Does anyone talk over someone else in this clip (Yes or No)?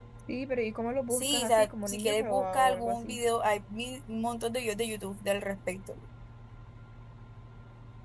Yes